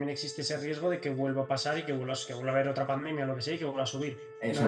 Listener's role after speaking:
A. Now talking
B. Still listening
A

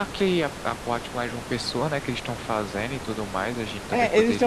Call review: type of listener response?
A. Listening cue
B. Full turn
B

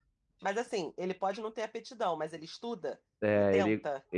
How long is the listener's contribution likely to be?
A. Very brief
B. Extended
B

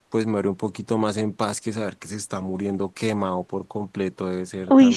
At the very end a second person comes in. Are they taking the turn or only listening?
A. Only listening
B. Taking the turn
B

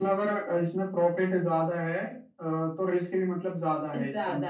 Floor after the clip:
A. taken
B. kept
A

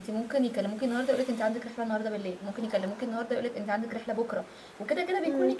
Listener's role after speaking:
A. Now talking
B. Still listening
B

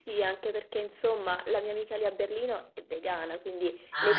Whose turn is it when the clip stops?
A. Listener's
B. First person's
B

